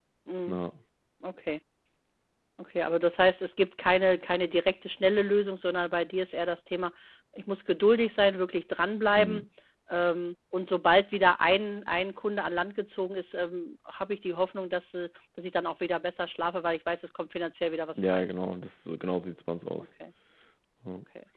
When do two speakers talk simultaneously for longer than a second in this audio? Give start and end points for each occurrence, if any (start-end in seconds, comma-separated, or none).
none